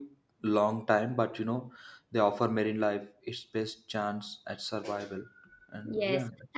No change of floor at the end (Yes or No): No